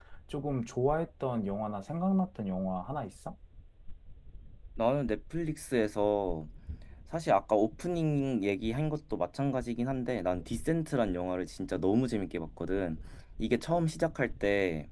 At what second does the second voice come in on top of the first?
none

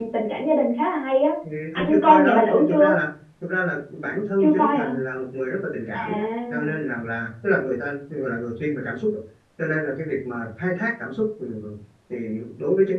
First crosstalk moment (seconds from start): 2 s

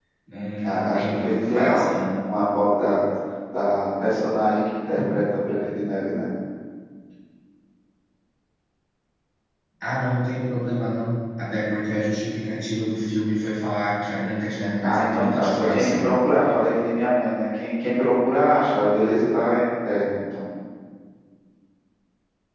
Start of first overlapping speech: 1 s

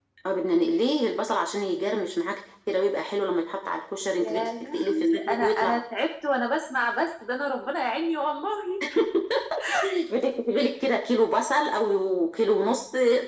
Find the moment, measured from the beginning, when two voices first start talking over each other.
4 s

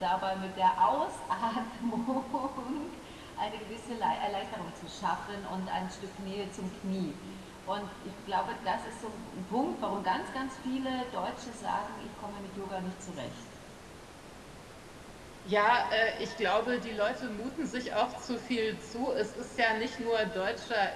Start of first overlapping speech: none

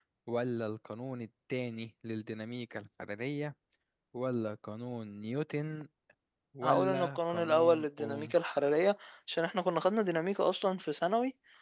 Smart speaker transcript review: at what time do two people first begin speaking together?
7 s

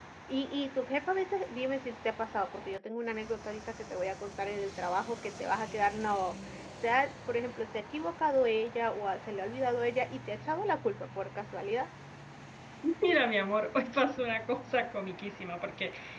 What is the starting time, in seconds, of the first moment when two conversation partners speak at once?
none

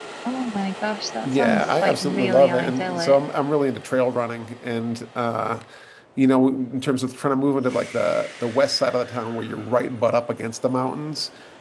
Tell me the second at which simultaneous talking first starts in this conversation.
1 s

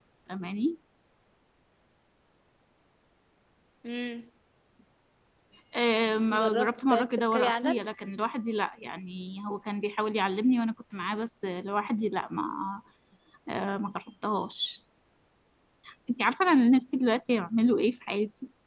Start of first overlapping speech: 6 s

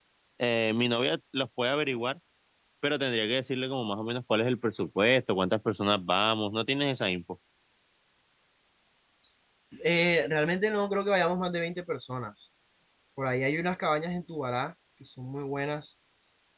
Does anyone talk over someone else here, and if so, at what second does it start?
none

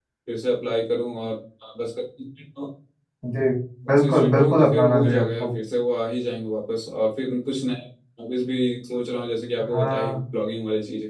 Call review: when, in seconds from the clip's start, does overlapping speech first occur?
4 s

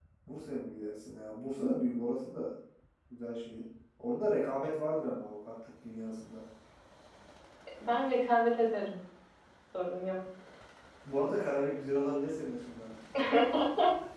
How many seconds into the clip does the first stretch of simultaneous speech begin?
none

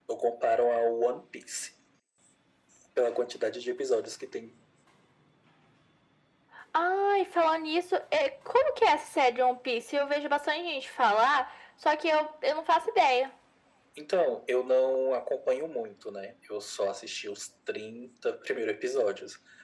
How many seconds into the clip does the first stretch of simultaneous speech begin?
none

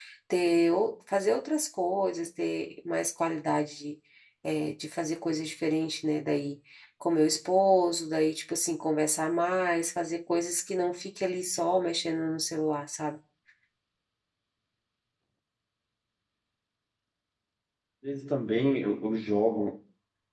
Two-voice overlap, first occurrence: none

